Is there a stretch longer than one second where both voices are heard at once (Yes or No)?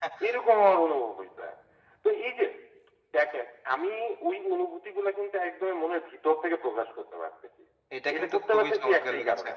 Yes